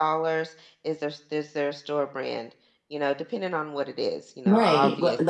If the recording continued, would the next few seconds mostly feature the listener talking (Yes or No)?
Yes